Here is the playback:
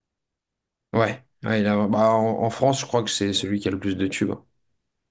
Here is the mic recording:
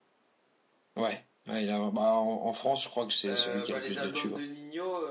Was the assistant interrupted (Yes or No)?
Yes